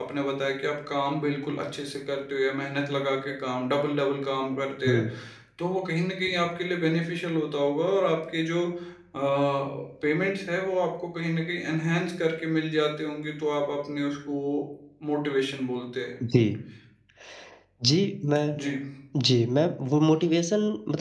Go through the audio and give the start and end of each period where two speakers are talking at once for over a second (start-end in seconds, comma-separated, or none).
none